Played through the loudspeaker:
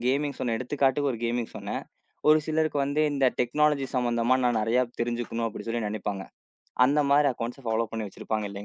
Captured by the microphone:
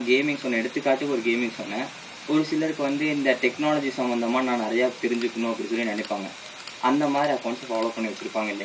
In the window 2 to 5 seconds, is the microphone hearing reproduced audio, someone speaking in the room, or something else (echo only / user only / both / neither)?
echo only